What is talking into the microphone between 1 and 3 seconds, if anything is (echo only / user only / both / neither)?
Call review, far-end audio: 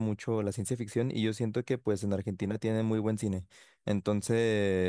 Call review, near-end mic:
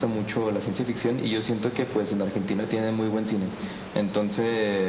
echo only